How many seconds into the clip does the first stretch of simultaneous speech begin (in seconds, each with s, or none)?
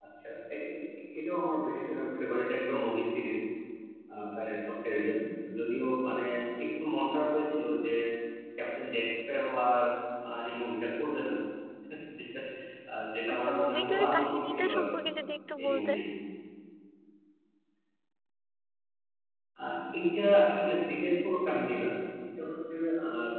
13.3 s